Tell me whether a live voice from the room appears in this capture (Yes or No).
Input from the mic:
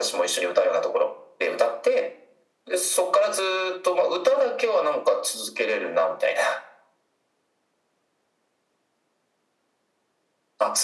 No